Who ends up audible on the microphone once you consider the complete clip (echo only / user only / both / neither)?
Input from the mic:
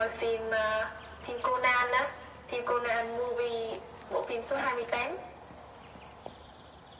echo only